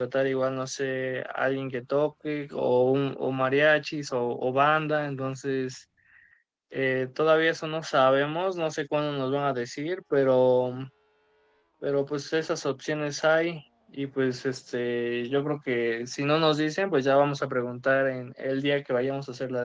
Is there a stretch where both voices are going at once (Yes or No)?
No